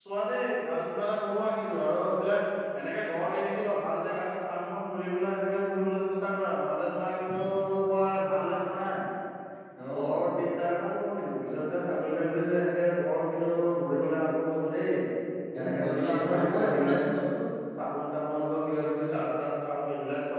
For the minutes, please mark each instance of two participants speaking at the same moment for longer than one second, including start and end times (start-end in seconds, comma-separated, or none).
15.6-16.9